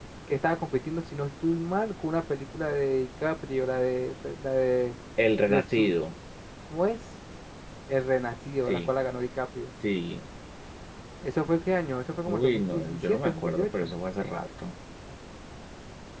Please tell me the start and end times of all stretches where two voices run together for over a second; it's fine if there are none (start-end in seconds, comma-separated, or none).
12.3-13.9